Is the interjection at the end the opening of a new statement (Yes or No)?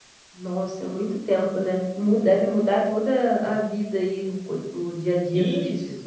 Yes